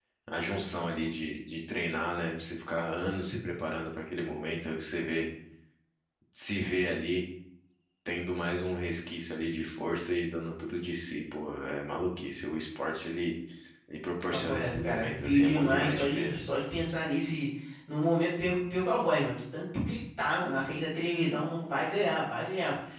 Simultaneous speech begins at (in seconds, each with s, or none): 14.3 s